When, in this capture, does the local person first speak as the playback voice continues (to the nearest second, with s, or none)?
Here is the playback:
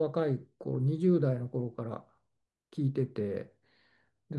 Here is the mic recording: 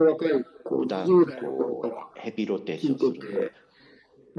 1 s